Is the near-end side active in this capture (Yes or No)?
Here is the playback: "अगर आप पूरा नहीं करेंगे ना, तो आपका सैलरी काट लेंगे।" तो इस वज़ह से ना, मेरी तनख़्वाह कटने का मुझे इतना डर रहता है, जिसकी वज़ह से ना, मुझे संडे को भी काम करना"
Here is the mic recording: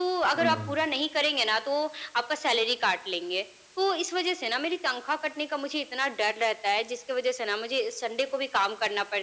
Yes